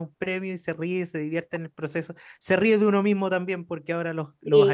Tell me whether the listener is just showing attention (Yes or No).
Yes